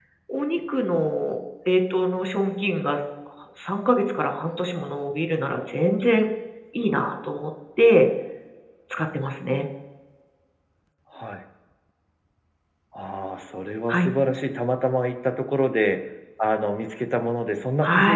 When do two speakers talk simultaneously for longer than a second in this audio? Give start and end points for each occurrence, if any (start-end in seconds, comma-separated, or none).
none